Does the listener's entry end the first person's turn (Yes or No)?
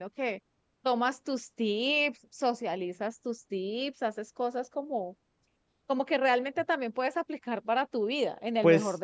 Yes